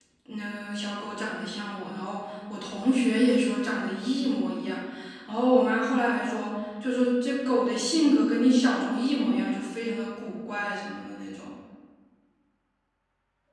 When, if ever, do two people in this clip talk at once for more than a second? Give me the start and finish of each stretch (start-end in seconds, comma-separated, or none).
none